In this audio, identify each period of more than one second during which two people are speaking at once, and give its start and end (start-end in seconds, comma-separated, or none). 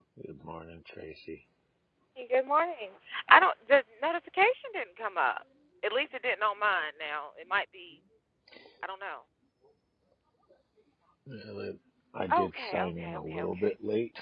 12.3-13.7